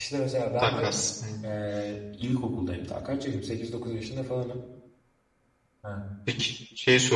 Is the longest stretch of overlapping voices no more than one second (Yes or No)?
Yes